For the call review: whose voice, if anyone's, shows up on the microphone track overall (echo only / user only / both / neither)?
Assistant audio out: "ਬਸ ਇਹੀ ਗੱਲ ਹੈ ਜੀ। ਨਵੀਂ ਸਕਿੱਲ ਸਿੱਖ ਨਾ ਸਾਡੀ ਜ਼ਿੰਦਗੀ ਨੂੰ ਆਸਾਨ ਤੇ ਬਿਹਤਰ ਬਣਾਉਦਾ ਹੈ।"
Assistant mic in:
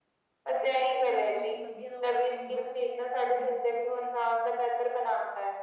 both